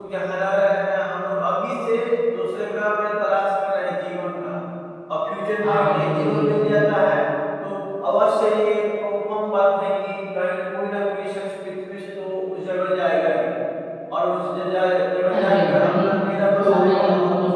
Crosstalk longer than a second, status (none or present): present